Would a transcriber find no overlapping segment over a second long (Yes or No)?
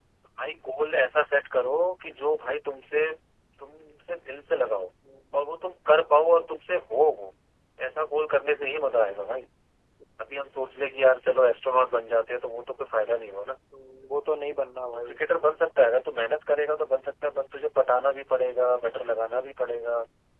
Yes